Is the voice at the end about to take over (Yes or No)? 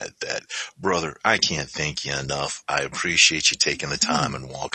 No